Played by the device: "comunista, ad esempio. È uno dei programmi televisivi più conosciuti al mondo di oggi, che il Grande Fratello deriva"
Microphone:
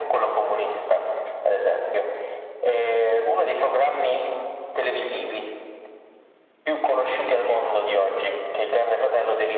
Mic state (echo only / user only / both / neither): echo only